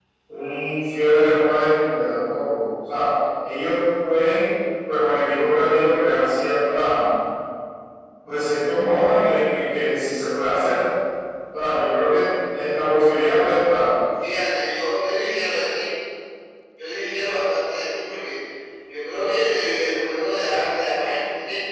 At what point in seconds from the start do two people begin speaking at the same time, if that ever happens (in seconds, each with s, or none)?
none